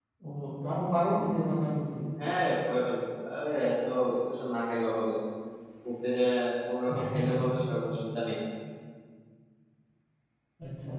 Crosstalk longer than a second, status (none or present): none